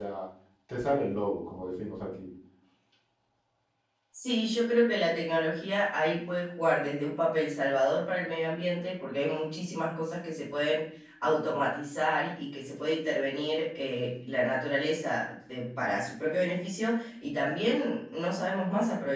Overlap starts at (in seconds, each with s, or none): none